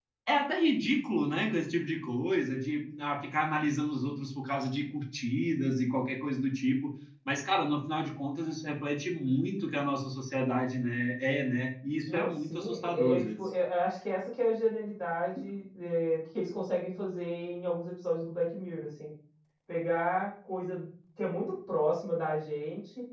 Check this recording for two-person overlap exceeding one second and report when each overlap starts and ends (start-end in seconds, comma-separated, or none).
12.1-13.4